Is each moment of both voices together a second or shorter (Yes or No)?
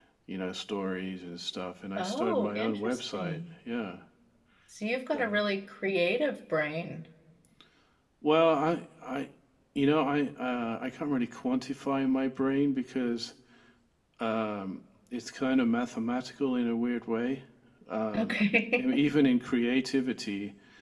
No